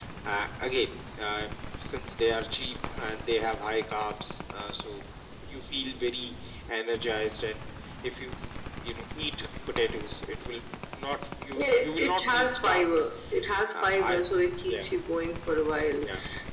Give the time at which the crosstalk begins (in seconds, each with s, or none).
11.6 s